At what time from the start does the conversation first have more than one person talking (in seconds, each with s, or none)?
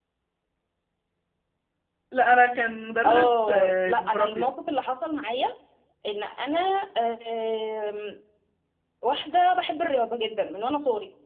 3.0 s